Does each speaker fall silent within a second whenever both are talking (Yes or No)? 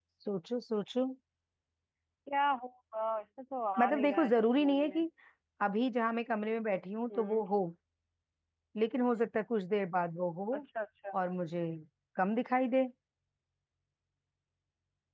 No